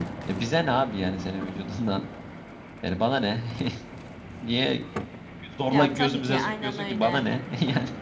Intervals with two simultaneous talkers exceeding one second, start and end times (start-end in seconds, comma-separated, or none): 5.7-7.2